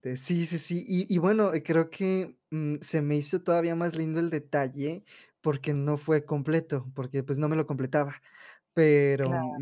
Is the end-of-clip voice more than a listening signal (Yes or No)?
No